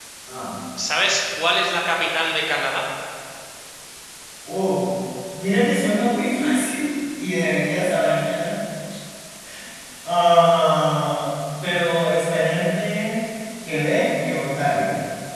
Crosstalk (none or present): none